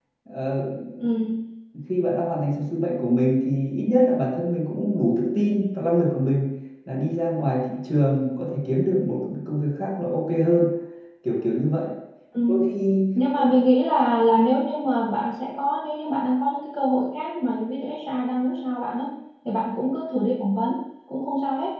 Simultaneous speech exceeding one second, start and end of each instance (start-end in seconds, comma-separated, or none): none